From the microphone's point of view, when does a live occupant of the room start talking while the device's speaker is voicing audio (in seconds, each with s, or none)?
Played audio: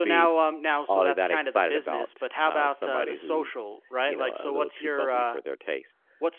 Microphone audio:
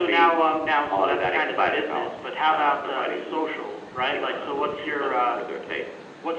none